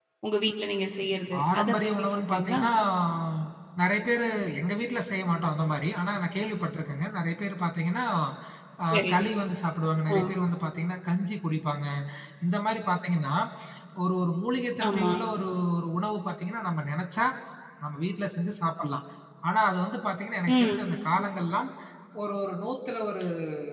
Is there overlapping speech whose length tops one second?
Yes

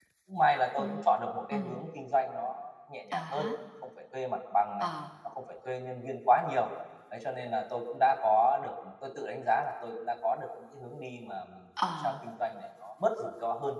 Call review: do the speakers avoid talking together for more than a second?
Yes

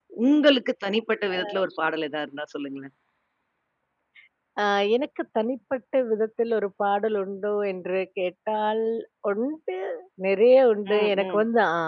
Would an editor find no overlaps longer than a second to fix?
Yes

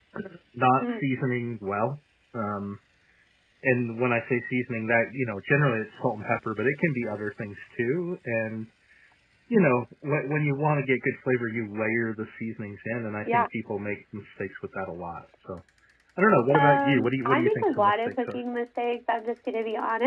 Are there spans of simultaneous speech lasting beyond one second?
Yes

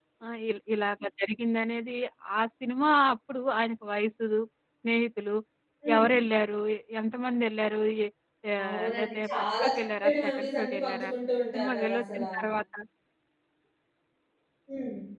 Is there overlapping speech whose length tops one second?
Yes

